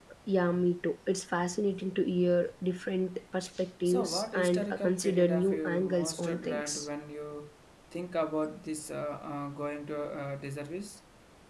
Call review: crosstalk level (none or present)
present